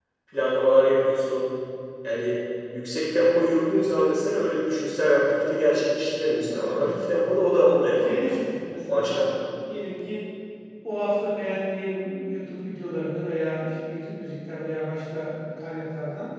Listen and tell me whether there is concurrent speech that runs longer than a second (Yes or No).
No